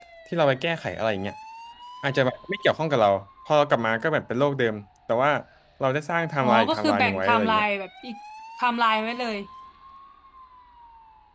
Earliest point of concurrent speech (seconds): 6.4 s

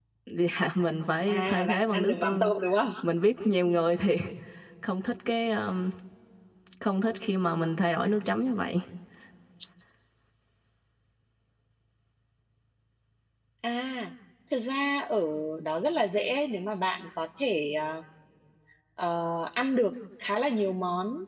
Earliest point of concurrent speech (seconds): 1.3 s

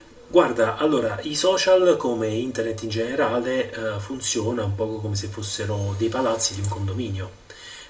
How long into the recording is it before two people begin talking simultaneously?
none

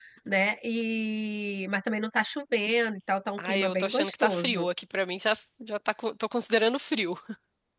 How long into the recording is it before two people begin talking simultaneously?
3.4 s

